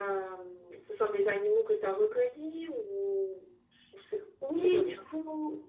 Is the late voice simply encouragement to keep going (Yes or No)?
No